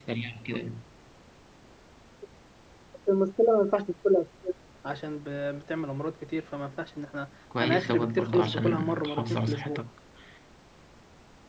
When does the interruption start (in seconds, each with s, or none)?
7.5 s